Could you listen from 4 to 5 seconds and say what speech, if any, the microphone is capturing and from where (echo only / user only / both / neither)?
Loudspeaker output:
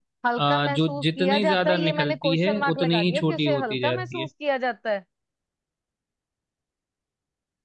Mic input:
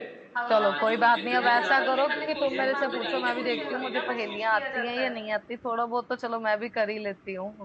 both